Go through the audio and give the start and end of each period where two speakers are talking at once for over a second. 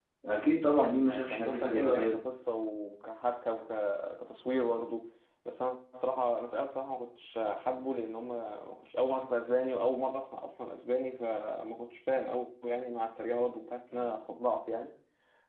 0.8-2.2

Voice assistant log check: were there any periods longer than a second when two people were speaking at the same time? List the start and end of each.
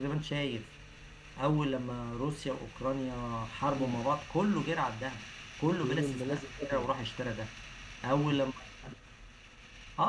5.8-7.0

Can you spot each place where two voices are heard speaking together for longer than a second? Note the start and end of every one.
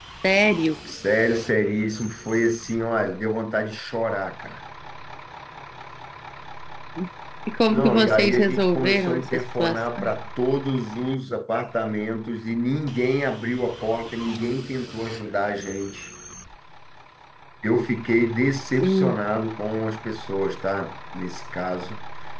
7.7-10.1

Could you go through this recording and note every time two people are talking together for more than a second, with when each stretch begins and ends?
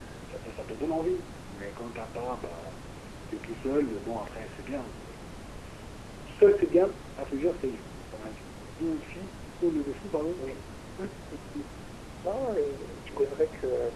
none

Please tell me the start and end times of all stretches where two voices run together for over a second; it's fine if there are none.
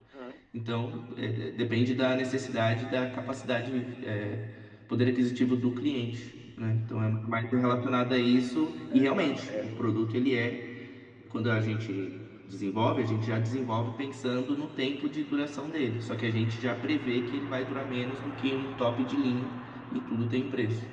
8.9-10.2

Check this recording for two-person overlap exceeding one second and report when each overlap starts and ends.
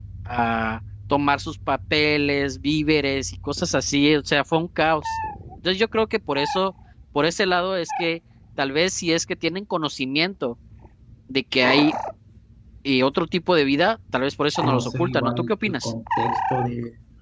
14.7-15.9

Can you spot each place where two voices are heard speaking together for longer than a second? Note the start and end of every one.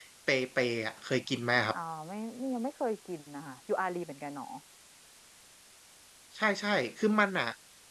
none

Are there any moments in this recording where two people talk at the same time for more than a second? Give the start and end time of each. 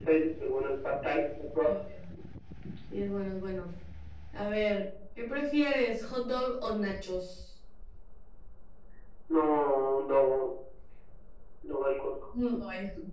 none

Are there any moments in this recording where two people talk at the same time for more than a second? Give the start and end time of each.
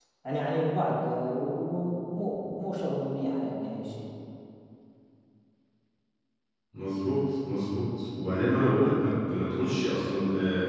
none

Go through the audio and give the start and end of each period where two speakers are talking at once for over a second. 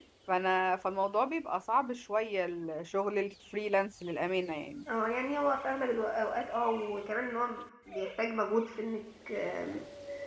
none

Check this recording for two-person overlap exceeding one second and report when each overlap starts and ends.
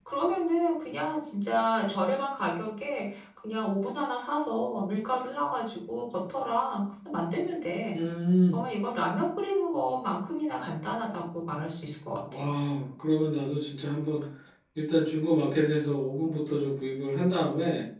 none

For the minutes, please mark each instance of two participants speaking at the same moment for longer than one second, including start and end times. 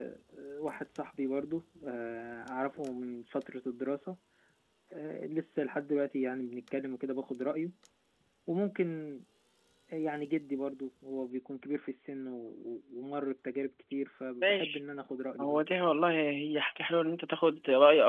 none

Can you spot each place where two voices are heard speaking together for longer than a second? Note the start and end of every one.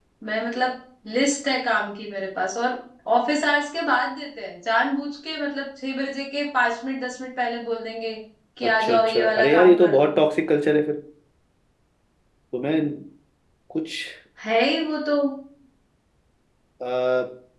8.6-10.2

